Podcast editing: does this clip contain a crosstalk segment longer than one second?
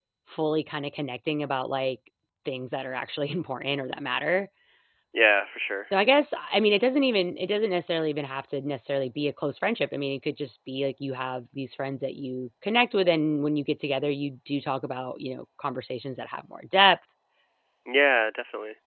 No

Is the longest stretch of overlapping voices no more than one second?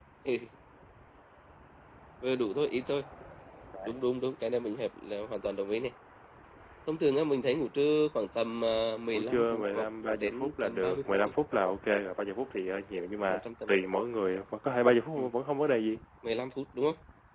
No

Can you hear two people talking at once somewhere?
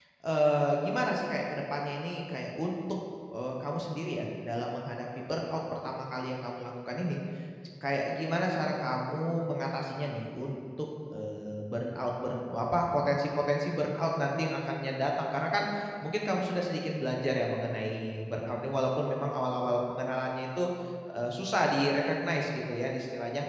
No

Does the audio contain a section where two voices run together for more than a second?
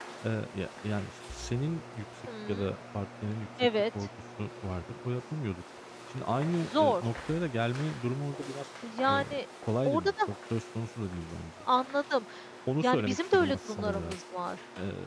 Yes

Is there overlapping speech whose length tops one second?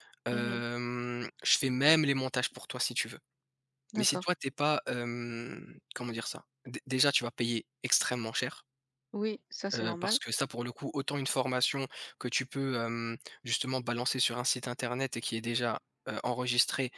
No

